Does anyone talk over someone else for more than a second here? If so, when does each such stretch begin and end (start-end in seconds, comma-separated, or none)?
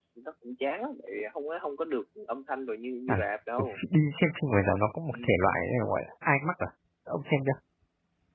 none